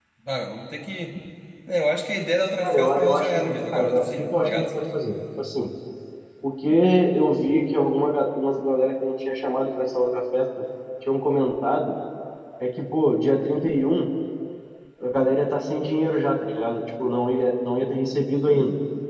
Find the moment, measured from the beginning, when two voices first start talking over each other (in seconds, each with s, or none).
2.6 s